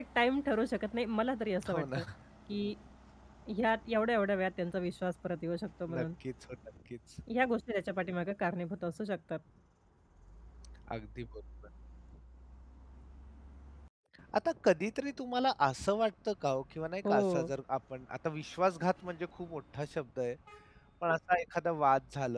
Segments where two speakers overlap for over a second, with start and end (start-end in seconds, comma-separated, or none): none